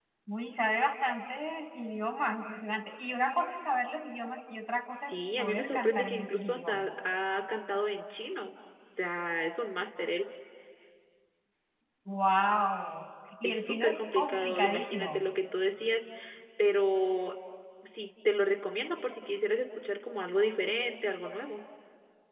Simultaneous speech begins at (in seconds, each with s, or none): 4.9 s